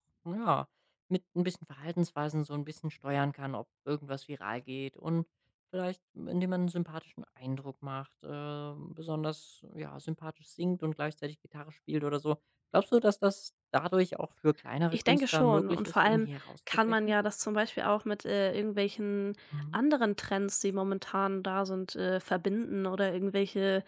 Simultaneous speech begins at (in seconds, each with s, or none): 14.9 s